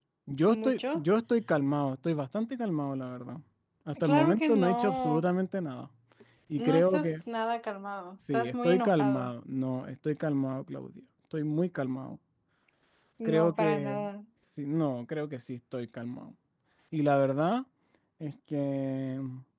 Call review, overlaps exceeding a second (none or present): present